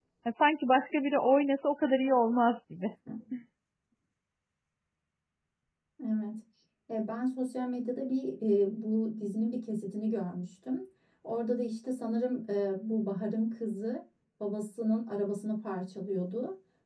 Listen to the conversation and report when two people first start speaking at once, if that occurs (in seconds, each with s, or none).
none